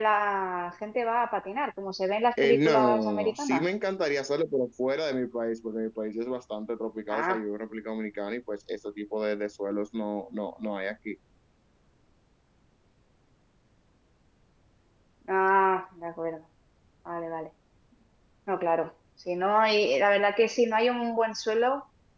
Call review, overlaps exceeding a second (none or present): present